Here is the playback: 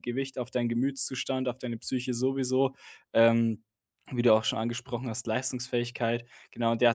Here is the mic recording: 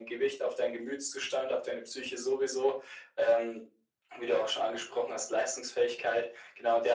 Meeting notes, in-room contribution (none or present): none